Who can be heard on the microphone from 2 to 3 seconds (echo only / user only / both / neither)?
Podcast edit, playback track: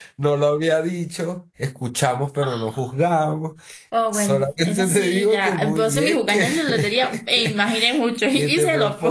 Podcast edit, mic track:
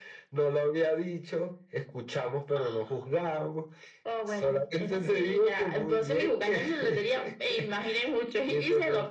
echo only